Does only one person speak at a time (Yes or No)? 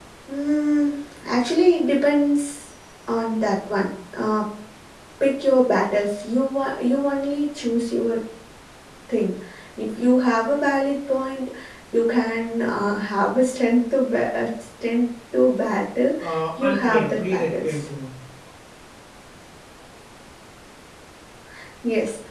No